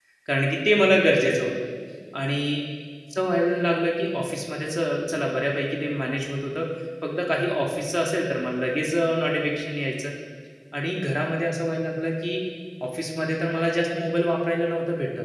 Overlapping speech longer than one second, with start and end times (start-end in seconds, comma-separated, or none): none